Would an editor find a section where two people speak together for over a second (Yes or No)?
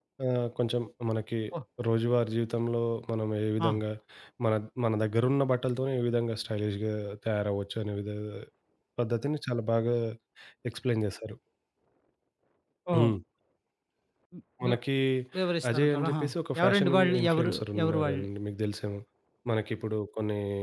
Yes